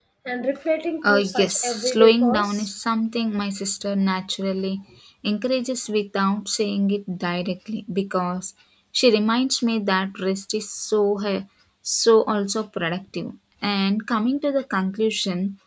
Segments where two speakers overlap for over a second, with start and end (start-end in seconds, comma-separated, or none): 1.0-2.7